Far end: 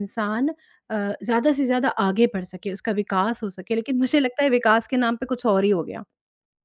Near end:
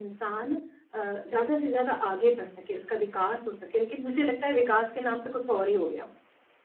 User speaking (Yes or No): No